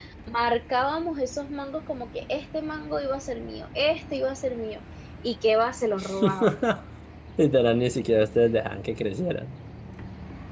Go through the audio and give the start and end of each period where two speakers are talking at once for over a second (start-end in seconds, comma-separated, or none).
none